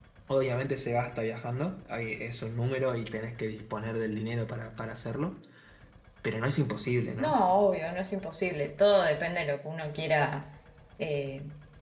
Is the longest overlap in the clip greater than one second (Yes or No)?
No